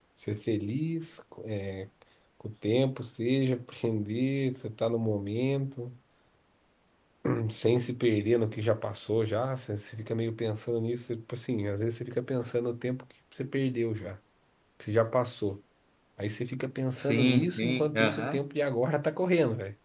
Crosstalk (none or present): present